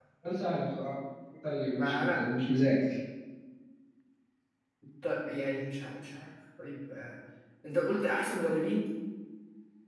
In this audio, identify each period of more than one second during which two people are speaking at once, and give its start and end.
none

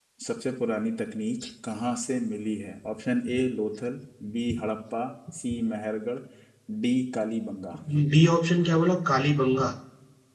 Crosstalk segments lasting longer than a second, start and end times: none

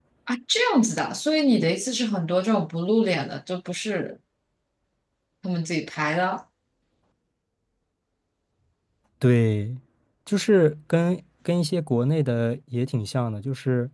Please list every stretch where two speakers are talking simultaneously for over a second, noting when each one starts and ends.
none

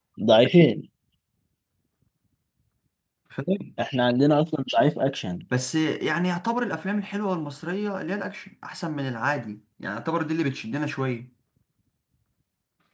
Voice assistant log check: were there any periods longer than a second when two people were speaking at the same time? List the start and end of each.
none

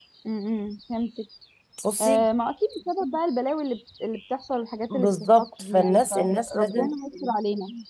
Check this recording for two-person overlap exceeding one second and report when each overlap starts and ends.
4.9-6.9

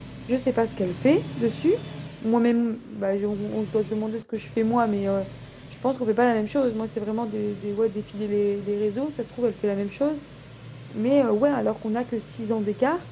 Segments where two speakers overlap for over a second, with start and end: none

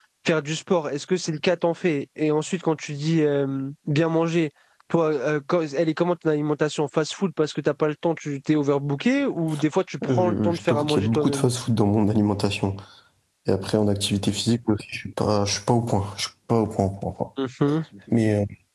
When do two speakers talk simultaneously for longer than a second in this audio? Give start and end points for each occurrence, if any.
10.0-11.4

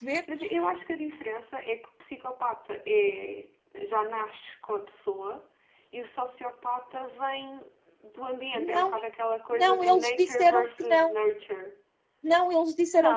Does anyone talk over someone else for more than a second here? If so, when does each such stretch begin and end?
9.5-11.1

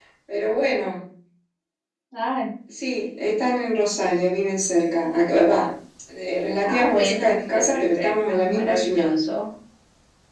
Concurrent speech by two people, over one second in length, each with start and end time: 6.6-9.1

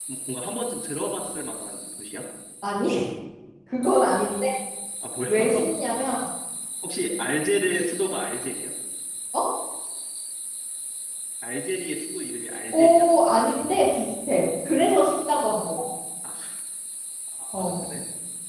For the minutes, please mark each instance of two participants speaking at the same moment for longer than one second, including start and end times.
none

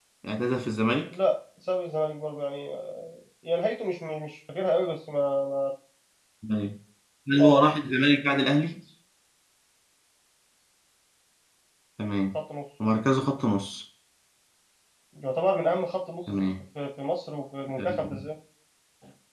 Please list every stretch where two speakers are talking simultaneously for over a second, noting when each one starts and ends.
none

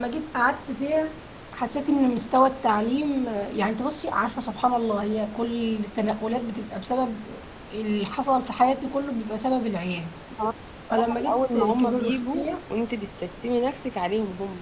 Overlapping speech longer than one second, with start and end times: 10.9-12.5

